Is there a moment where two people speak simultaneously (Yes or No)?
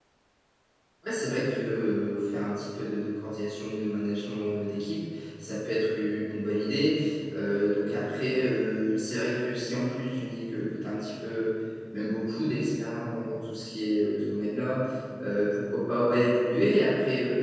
No